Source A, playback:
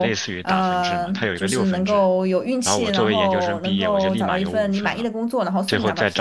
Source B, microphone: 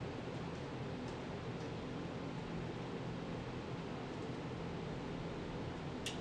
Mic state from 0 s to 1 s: neither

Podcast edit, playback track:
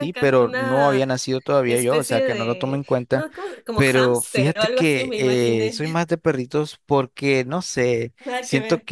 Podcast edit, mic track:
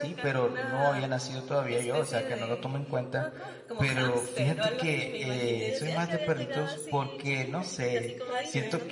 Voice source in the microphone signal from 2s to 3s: echo only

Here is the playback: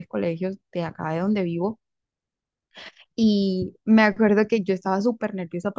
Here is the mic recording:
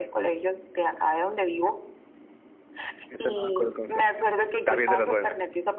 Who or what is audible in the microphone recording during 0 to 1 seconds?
echo only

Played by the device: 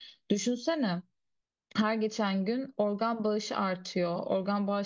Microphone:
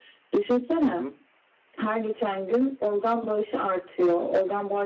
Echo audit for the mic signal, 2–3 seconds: echo only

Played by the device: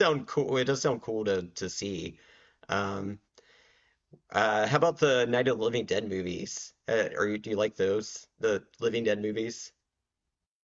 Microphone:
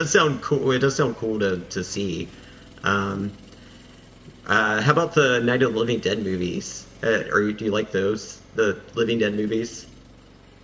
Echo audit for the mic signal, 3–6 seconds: echo only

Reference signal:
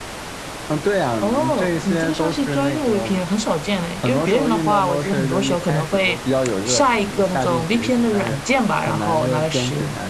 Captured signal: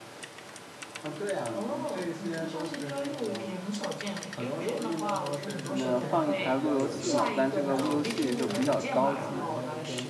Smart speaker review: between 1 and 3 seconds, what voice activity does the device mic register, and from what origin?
echo only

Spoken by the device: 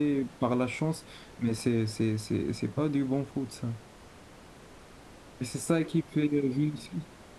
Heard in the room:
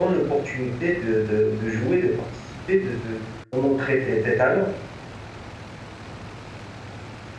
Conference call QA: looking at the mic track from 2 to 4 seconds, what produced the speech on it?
user only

